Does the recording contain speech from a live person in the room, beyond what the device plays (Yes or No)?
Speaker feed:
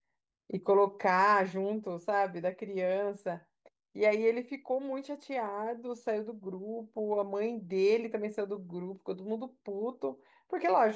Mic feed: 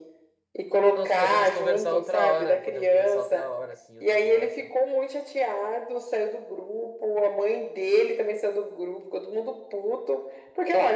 Yes